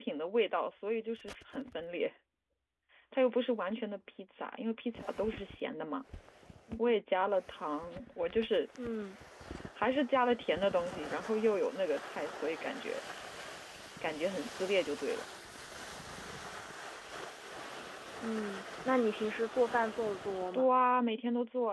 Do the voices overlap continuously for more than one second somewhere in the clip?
No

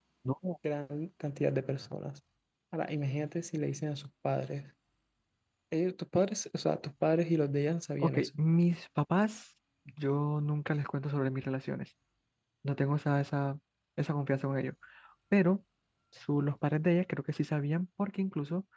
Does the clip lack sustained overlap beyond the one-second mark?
Yes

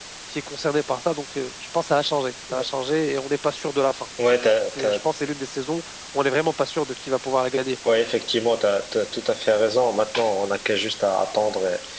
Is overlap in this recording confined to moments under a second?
Yes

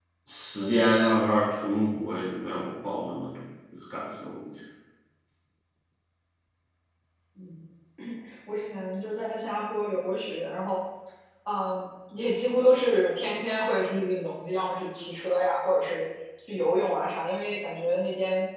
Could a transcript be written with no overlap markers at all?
Yes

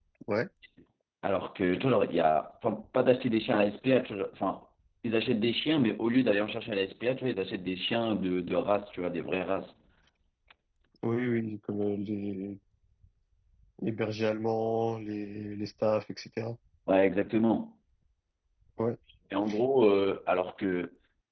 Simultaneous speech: No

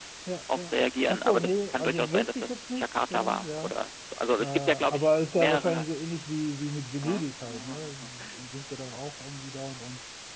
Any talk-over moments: Yes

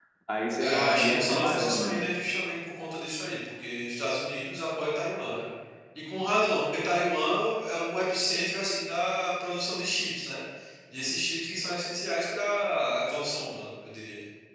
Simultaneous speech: Yes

